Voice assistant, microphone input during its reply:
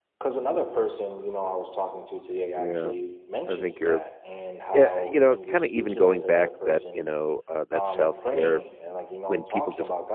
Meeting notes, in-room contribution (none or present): present